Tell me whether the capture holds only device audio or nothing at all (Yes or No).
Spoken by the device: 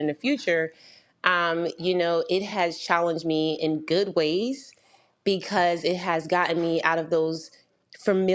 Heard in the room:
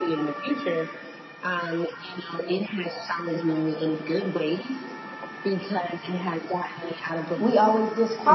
No